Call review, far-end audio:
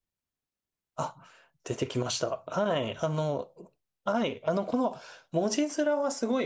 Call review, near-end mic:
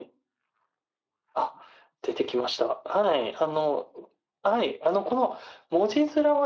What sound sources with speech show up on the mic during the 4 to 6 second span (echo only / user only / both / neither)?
echo only